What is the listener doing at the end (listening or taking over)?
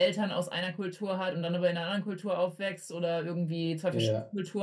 listening